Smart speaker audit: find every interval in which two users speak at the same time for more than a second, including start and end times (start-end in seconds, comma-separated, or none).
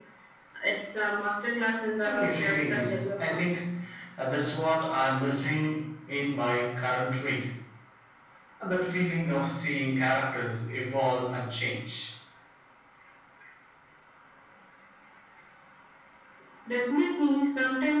2.0-3.5